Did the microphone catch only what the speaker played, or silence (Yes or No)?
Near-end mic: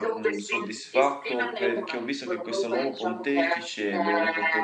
No